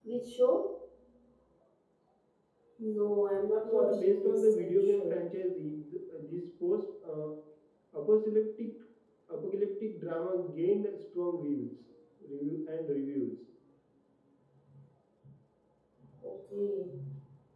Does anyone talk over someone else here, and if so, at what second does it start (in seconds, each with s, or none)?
3.7 s